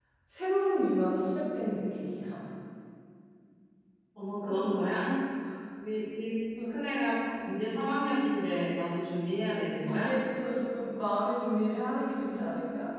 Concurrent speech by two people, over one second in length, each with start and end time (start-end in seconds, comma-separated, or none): none